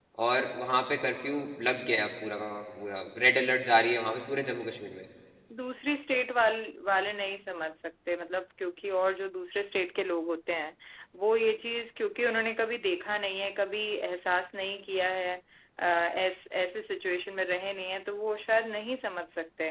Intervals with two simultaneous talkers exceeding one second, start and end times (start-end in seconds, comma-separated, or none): none